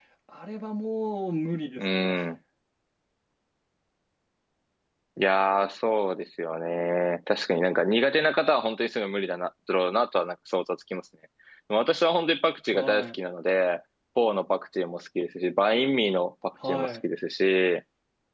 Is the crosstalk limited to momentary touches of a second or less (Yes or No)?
Yes